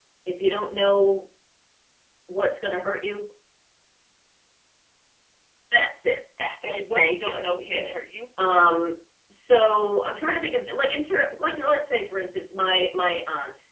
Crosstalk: present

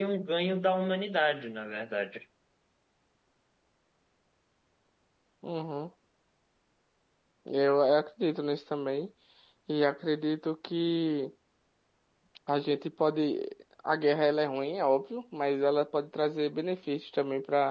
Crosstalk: none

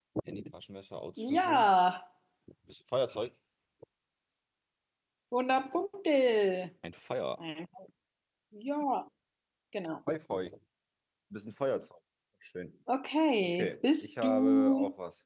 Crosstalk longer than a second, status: present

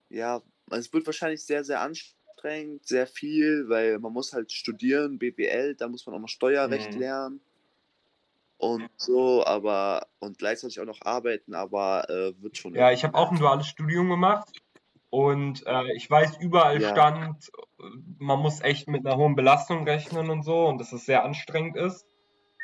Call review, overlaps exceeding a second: none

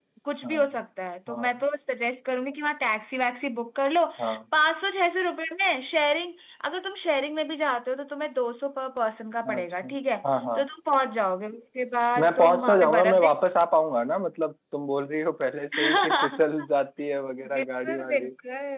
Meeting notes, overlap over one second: present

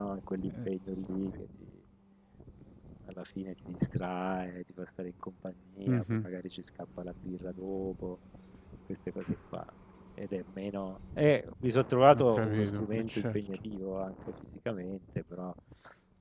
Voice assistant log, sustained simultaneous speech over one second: present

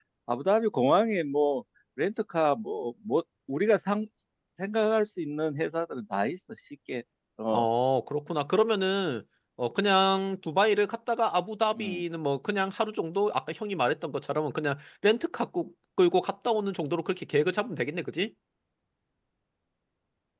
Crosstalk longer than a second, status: none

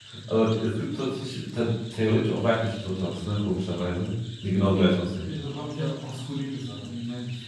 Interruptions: none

